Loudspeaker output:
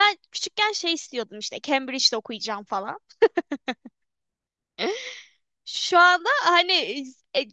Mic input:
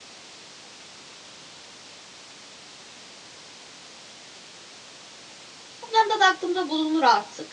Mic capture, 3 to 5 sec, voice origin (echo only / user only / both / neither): neither